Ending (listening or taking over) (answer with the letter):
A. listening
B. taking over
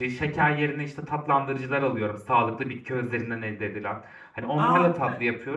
A